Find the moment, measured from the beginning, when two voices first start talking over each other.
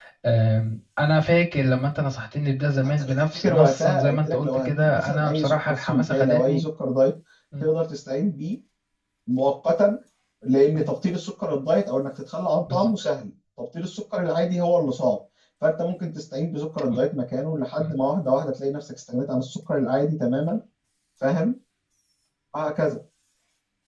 3.0 s

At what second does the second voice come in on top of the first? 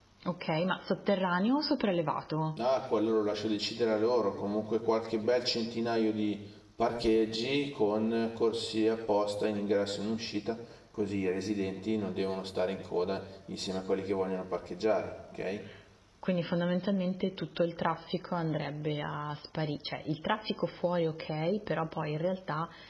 none

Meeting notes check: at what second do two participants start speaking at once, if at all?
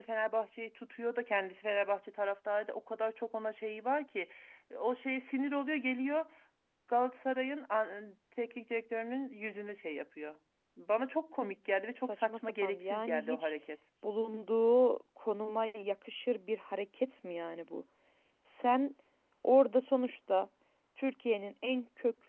12.1 s

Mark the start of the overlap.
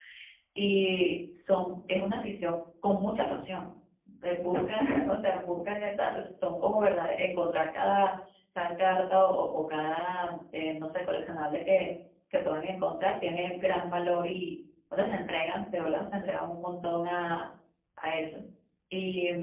none

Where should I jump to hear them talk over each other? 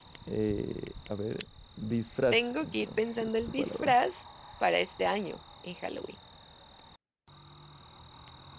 2.3 s

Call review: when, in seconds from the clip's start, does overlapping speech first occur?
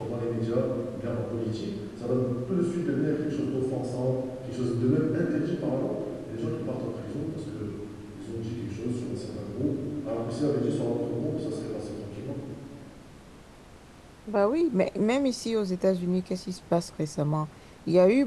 none

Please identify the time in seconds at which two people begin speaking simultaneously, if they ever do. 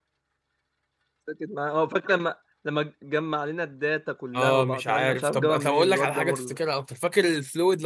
4.3 s

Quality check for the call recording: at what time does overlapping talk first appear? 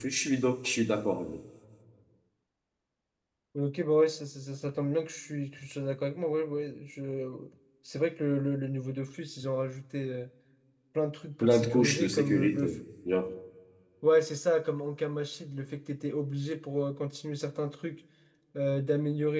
11.4 s

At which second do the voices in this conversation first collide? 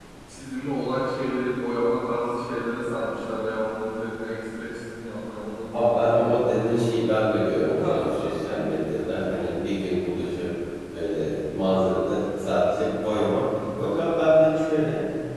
5.7 s

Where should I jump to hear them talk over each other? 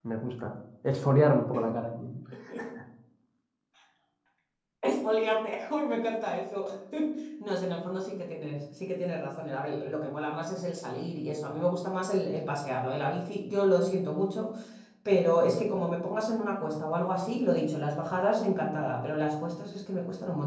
none

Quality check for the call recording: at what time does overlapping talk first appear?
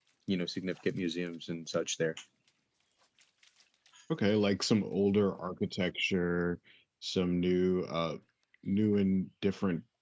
none

